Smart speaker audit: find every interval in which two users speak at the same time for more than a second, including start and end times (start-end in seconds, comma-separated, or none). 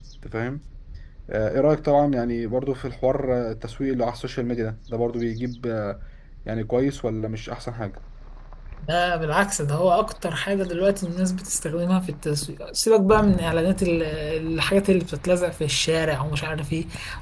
none